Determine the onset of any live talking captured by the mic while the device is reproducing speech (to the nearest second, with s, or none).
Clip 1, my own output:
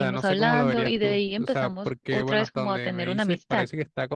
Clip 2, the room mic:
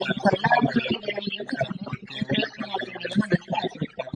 none